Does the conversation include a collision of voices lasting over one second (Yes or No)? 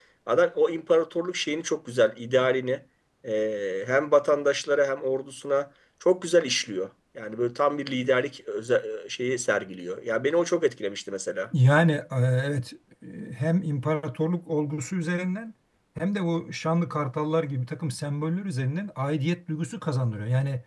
No